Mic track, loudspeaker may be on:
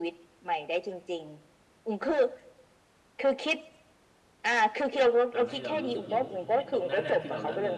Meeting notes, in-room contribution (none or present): present